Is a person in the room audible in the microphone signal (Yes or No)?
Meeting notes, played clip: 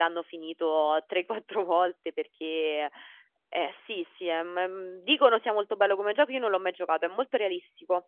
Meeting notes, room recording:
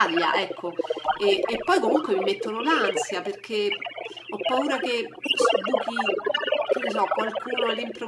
Yes